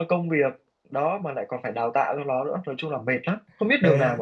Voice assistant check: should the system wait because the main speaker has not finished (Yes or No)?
No